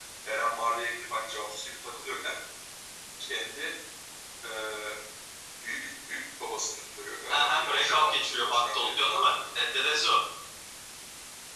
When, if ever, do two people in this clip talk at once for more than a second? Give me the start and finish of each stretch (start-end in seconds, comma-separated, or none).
7.3-9.3